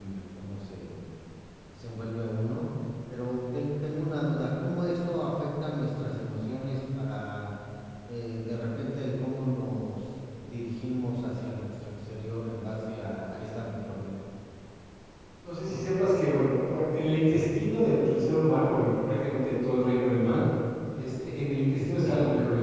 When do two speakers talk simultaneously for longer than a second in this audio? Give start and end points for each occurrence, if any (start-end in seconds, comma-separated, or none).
none